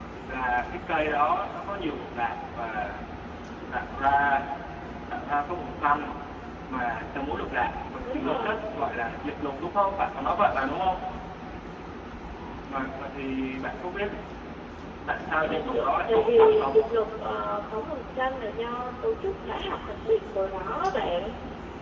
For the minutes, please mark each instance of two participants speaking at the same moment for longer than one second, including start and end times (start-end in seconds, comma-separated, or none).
15.4-16.8